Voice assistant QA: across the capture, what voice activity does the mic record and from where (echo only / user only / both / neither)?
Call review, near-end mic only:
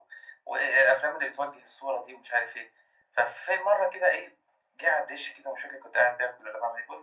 echo only